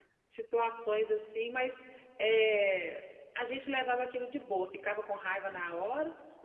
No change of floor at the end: Yes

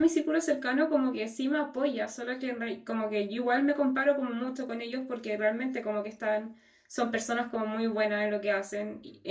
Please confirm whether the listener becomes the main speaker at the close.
No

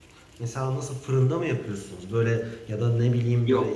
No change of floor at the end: Yes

